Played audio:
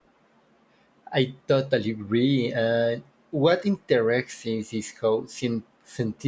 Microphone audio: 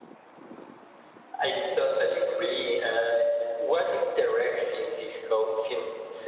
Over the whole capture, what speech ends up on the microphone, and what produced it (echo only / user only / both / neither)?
echo only